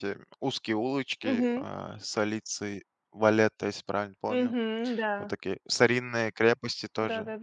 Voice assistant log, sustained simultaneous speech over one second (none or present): none